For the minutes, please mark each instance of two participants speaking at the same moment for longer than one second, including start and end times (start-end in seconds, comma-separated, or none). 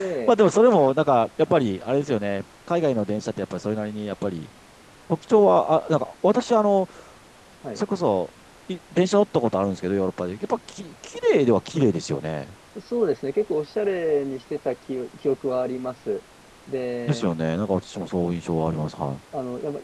none